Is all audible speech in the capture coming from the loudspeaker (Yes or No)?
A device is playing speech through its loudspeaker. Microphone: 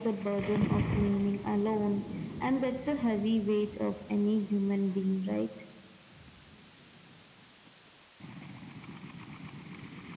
Yes